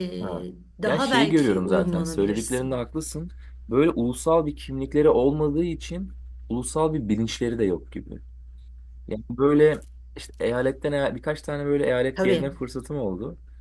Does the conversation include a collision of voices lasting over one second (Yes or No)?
Yes